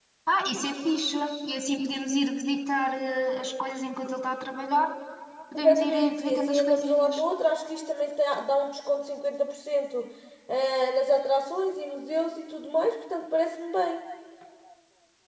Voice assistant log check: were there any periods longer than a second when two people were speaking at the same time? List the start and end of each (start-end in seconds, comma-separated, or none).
5.6-7.2